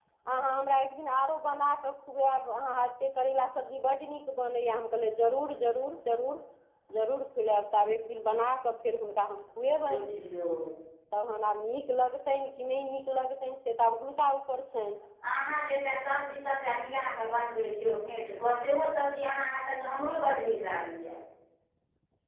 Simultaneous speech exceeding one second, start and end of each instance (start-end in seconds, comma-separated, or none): none